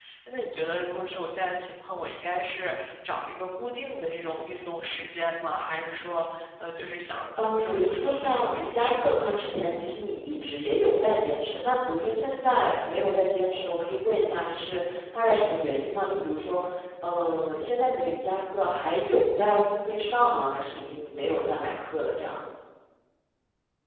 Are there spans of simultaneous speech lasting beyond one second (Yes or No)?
Yes